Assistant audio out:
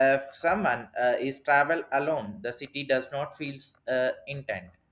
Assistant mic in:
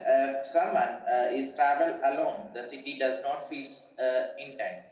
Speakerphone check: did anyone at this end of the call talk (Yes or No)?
No